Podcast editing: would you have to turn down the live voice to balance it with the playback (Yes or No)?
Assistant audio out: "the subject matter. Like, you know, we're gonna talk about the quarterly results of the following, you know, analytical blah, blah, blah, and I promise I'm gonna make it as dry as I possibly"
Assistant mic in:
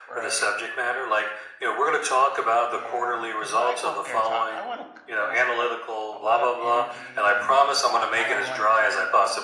No